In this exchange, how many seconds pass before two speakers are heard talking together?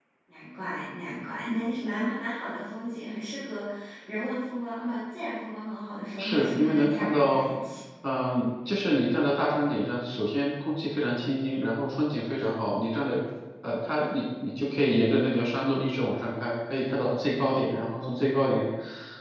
6.2 s

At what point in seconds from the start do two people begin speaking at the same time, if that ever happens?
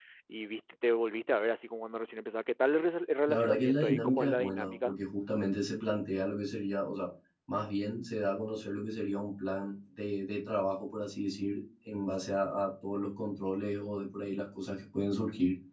3.3 s

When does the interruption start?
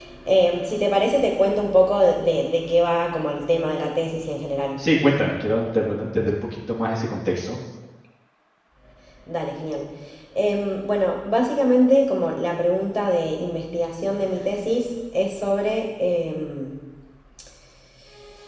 none

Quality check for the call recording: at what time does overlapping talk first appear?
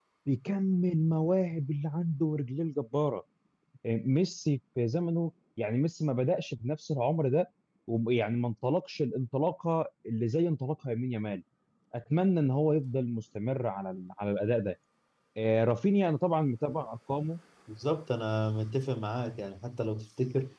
none

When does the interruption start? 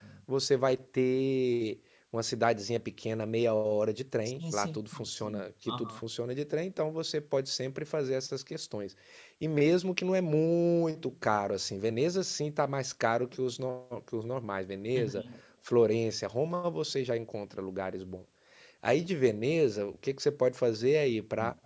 4.4 s

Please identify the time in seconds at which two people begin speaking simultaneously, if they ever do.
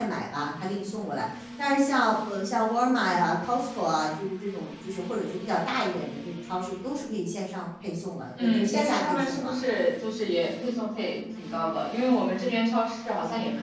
8.4 s

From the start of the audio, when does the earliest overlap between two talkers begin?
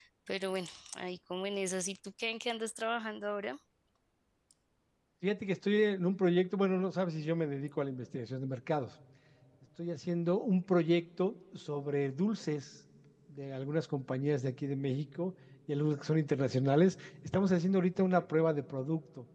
none

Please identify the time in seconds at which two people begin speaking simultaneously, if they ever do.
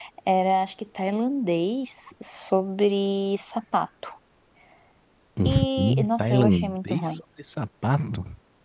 5.4 s

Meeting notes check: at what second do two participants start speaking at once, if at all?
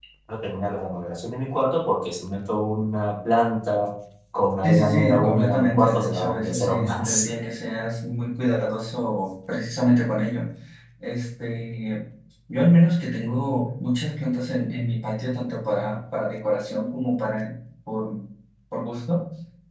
4.6 s

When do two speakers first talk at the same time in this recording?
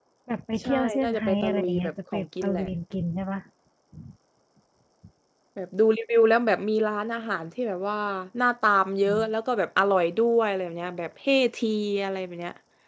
0.6 s

